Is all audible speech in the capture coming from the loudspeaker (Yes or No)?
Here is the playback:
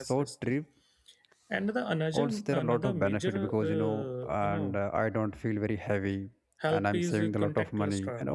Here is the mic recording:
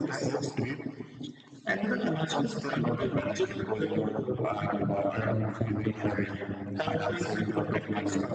Yes